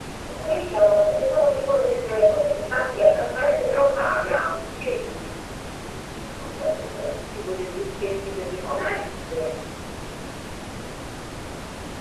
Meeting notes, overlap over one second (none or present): none